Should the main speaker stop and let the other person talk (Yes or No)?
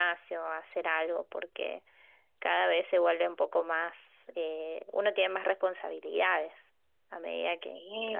Yes